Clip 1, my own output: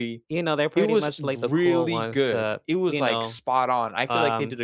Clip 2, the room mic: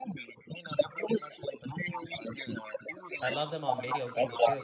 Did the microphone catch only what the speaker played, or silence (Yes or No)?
No